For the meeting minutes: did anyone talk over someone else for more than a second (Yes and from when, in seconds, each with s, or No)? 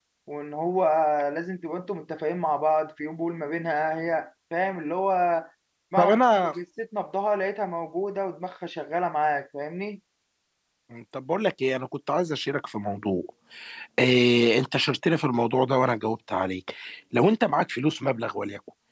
No